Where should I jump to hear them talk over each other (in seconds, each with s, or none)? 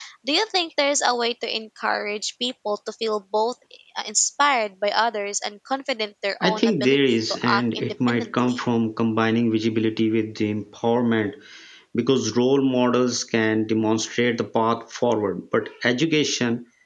6.4 s